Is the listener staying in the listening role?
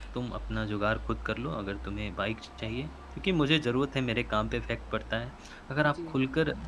Yes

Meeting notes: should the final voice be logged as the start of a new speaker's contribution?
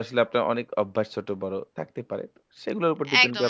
Yes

